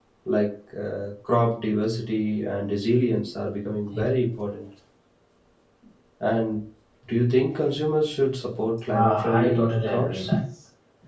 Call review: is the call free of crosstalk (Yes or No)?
No